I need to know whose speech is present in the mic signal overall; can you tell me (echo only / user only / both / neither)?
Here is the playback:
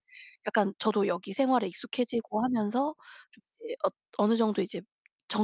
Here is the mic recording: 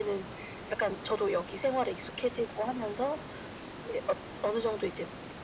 echo only